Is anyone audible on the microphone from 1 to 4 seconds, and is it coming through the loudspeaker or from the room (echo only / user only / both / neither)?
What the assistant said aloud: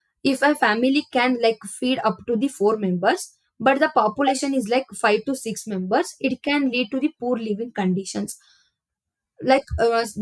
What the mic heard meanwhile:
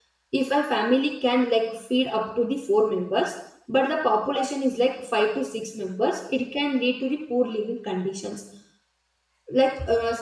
echo only